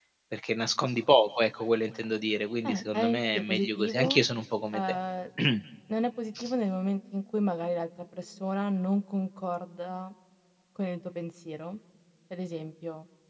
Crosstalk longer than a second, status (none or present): present